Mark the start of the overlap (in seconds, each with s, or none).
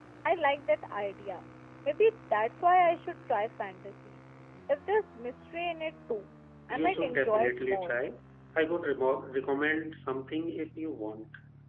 6.7 s